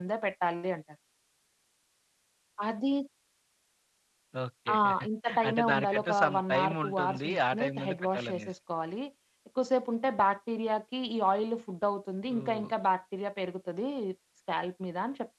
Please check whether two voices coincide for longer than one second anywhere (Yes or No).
Yes